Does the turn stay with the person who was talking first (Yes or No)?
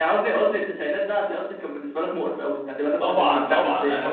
No